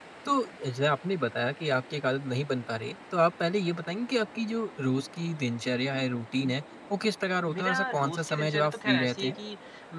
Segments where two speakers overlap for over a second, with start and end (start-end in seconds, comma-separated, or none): 7.5-9.3